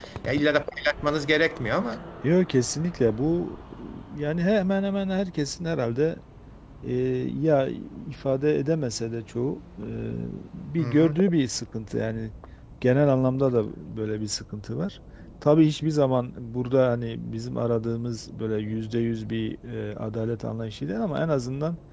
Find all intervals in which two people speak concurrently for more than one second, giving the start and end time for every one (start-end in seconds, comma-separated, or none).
none